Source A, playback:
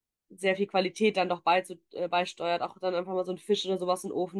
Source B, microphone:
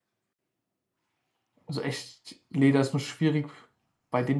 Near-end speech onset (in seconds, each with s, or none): 1.7 s